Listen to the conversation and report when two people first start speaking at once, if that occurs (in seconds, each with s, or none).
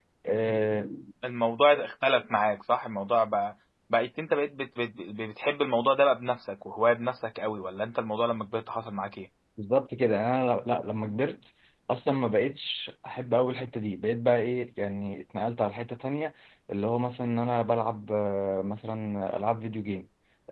none